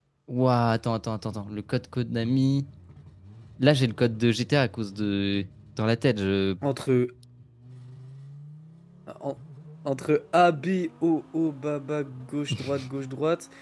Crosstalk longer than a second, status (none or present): none